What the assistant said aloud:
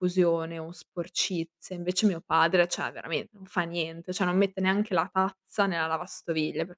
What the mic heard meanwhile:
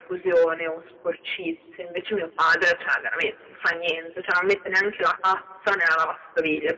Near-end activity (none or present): none